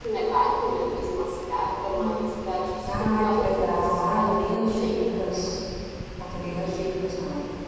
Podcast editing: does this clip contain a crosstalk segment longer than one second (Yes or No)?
Yes